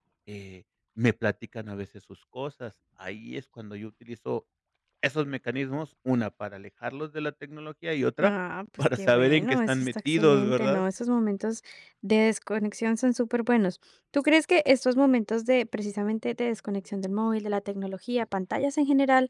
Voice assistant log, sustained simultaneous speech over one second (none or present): present